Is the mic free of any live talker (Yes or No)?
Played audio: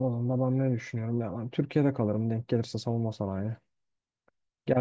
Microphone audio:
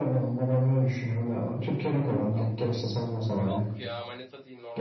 No